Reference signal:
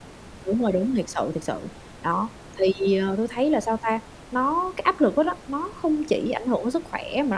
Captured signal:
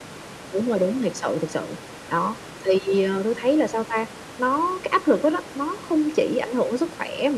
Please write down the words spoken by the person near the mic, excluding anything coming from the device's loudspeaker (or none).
none